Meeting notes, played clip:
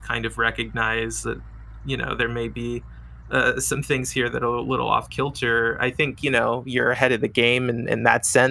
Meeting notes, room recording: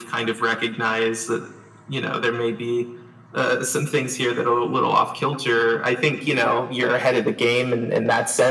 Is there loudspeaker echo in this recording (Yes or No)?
Yes